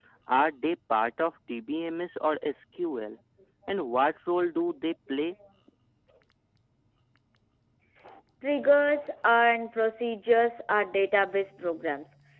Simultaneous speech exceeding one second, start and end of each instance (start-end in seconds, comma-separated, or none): none